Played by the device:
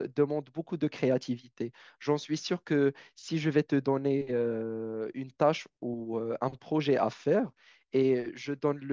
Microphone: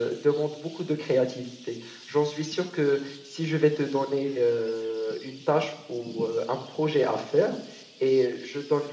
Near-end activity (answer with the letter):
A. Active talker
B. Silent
B